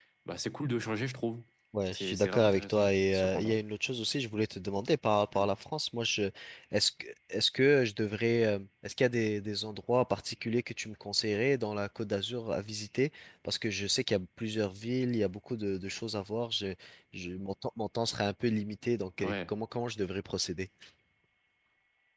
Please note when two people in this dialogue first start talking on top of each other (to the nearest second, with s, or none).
2 s